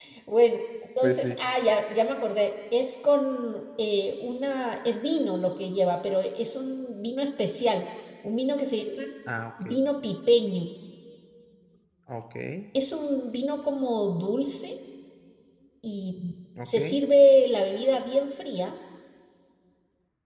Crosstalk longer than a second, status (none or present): none